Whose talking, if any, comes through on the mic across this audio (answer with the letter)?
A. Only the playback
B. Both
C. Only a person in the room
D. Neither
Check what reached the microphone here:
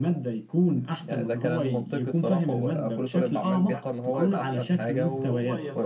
B